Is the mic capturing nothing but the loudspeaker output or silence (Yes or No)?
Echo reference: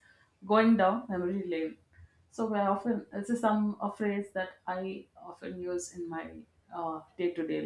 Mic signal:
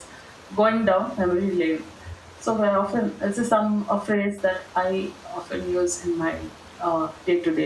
Yes